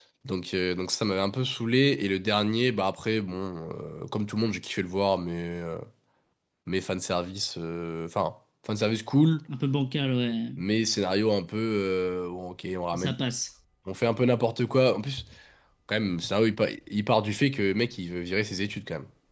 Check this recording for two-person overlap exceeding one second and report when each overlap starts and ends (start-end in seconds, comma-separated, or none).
none